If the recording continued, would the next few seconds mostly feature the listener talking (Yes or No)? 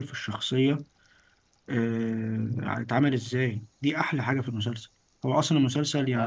No